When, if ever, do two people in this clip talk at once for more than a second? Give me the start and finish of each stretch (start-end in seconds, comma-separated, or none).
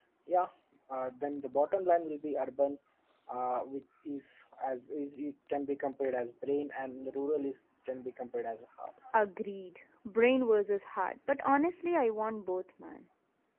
none